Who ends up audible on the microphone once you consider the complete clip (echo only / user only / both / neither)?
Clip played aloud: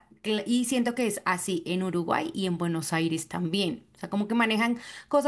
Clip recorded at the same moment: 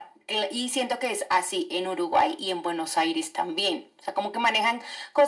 echo only